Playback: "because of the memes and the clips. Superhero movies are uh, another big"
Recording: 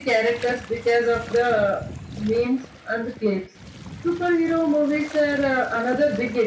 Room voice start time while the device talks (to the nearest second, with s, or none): none